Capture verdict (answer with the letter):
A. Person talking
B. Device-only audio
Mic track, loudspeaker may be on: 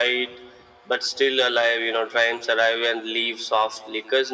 B